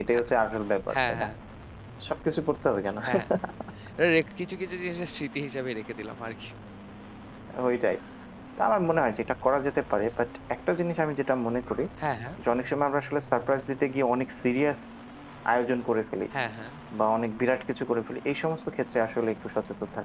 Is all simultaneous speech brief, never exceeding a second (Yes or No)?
Yes